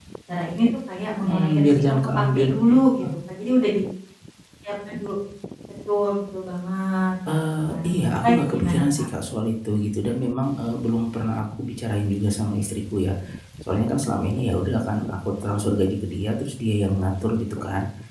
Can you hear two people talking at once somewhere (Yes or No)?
Yes